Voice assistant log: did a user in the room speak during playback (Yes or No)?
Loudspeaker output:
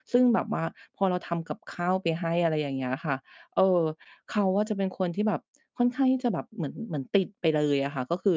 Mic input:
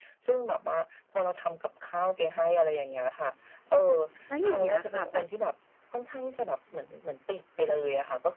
Yes